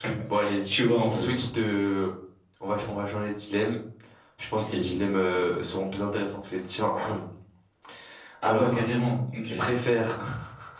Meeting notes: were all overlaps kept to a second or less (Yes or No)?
Yes